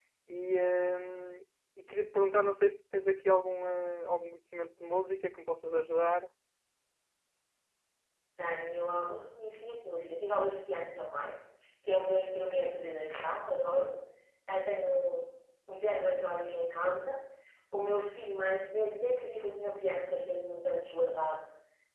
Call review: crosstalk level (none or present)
none